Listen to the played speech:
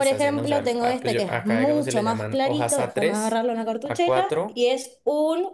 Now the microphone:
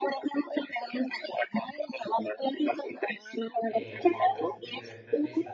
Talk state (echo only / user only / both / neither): both